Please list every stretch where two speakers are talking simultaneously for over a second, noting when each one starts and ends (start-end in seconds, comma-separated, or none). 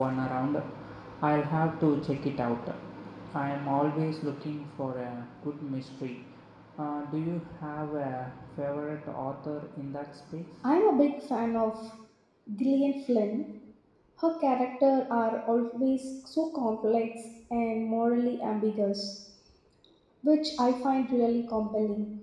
none